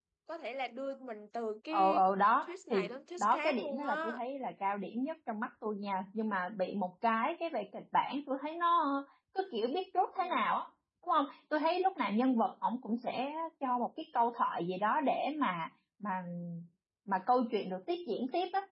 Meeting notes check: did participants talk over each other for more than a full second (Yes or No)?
Yes